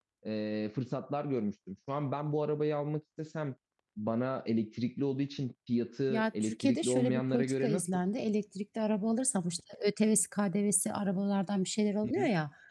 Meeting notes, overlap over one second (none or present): present